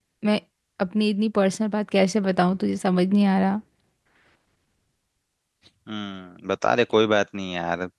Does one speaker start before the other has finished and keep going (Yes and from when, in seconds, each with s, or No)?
No